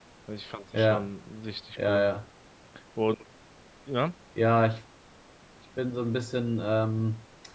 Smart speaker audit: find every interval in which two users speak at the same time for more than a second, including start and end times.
none

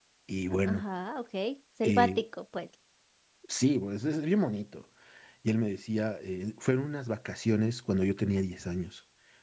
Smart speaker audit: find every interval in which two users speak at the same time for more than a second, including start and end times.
none

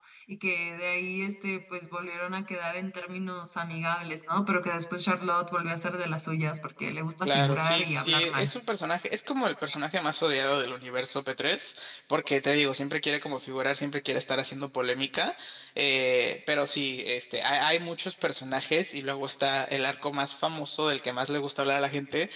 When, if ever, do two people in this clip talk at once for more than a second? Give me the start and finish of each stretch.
7.2-8.5

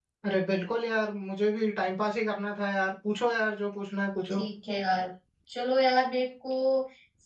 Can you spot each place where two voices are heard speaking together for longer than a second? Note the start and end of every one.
none

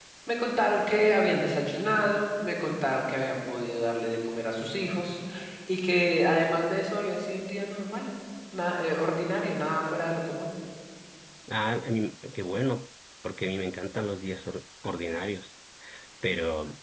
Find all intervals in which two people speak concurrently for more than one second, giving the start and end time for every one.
none

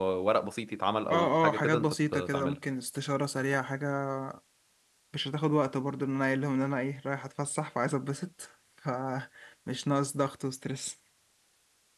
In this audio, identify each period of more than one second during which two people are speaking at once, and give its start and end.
1.1-2.6

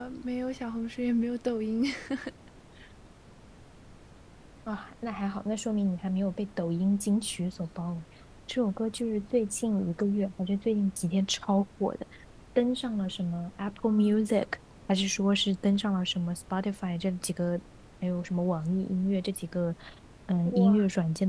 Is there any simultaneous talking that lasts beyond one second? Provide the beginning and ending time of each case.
none

